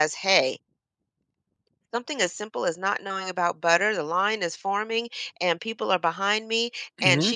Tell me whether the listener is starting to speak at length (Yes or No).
No